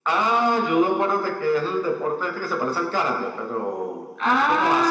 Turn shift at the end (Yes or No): No